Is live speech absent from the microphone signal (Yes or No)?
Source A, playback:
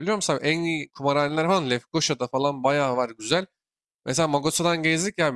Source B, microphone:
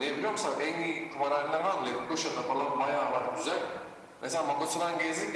Yes